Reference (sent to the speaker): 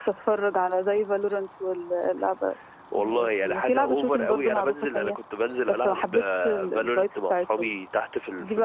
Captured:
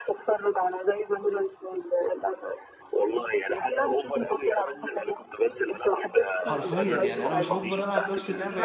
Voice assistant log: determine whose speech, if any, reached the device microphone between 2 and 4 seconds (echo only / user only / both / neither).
echo only